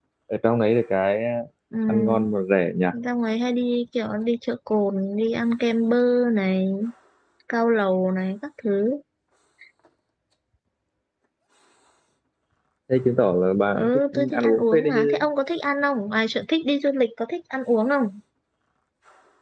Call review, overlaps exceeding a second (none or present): present